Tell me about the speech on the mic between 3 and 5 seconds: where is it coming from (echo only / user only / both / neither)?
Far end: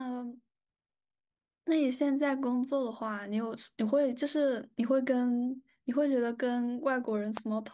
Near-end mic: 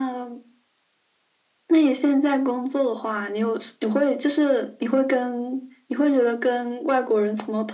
echo only